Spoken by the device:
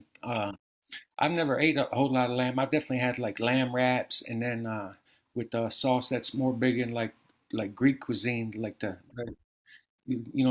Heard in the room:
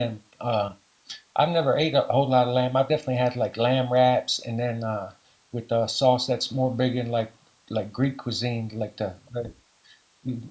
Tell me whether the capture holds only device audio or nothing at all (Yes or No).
Yes